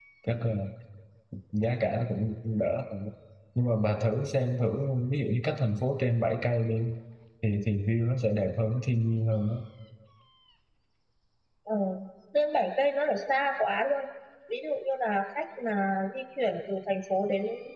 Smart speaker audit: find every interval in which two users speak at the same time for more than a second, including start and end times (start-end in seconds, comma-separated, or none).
none